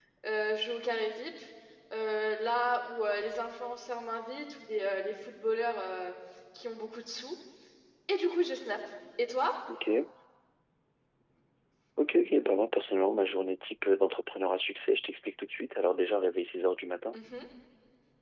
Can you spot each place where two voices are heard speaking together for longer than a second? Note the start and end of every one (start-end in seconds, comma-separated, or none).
none